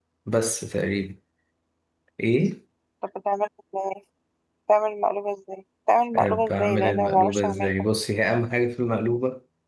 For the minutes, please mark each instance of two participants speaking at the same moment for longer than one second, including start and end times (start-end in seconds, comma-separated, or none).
6.2-7.7